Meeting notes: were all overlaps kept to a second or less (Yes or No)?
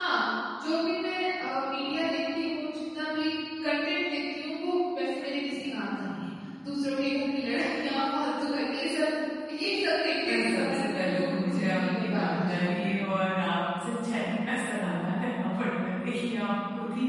No